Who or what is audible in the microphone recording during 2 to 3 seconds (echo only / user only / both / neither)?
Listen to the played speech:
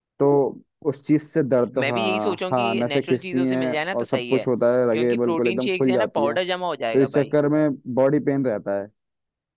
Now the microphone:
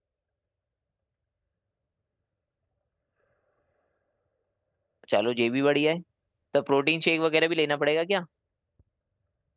neither